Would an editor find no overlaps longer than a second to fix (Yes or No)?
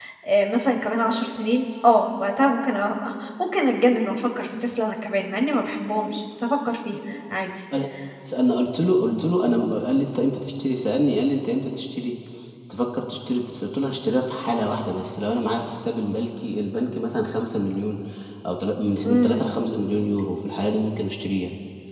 Yes